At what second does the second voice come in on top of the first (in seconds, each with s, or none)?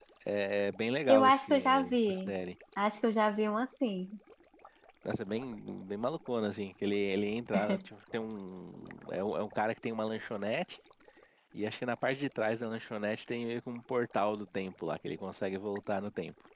1.1 s